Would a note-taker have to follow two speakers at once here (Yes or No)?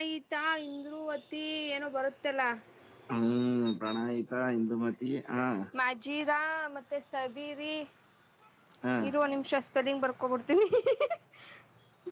No